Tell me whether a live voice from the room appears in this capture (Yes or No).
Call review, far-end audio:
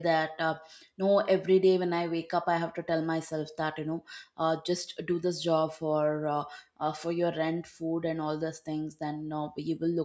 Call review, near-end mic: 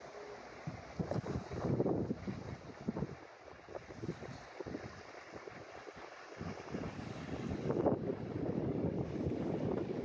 No